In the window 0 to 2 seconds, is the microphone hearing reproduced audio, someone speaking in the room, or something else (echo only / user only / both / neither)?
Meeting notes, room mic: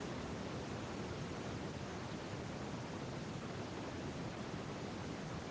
neither